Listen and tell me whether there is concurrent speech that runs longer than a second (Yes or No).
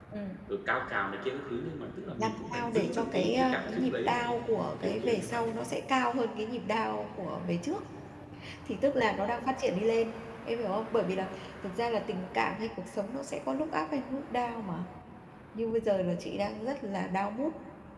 Yes